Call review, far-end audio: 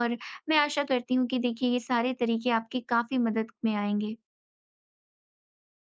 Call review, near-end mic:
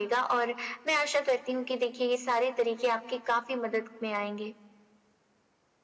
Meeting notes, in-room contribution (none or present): none